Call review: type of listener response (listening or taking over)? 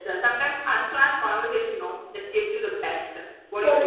taking over